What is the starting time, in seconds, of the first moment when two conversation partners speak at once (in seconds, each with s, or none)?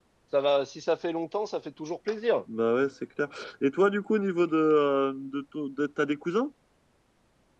none